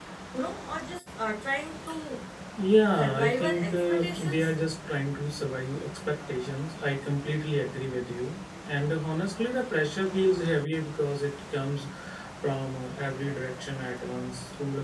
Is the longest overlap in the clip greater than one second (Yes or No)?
Yes